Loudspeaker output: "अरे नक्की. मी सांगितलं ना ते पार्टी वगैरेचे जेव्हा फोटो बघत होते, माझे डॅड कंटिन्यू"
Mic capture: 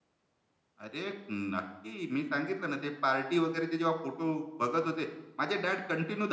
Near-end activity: none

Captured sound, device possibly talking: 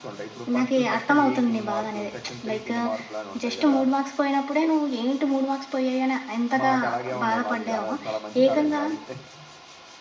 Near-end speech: present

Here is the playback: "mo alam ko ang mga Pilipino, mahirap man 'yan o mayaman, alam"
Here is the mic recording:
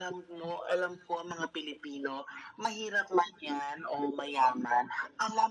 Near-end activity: none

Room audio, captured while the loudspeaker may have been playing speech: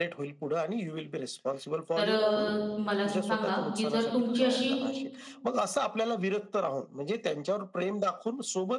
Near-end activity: present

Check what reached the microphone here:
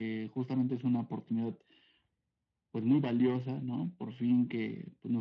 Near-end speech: none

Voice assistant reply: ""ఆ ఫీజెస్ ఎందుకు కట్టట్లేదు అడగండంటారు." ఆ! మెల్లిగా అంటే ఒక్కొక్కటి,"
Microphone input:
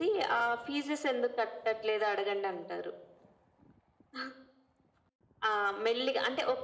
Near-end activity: none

